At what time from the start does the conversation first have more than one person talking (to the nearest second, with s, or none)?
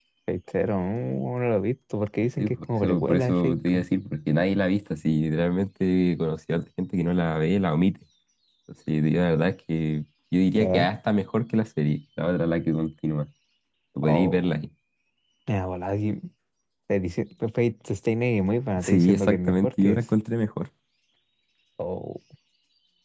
2 s